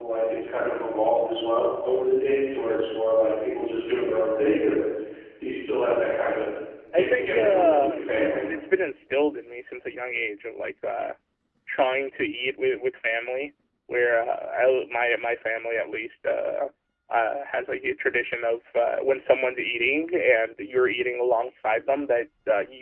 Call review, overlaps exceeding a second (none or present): present